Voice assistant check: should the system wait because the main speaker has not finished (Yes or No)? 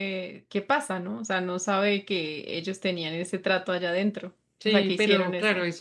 No